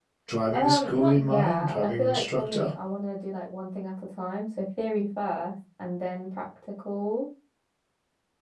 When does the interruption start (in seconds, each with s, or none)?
0.5 s